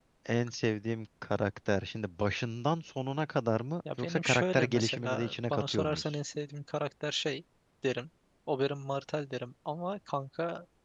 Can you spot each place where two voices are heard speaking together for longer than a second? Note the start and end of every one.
4.0-6.2

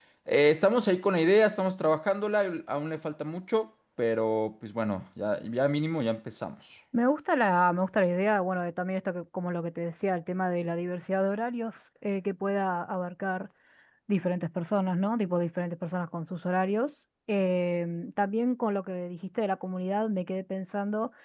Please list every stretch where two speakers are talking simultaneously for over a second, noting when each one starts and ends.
none

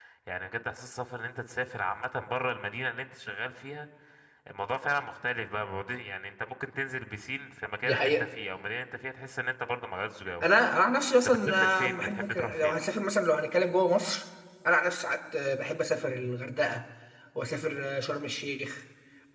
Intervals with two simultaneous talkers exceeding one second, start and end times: 11.2-12.8

